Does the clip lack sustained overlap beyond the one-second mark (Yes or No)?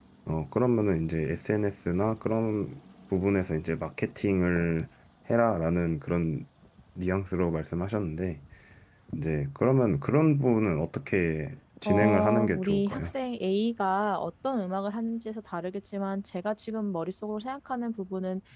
No